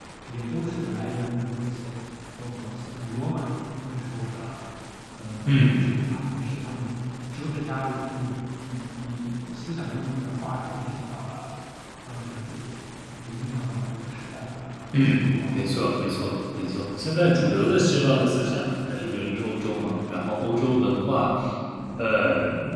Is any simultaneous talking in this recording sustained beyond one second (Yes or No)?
No